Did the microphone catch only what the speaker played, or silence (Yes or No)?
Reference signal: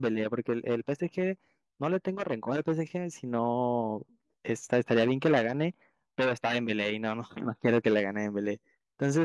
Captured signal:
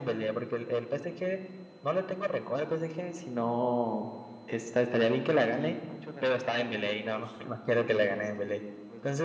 No